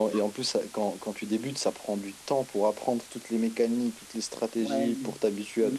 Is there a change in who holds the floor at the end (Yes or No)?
Yes